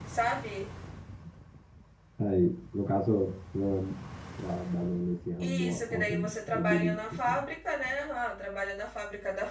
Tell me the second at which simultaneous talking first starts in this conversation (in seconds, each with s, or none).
5.4 s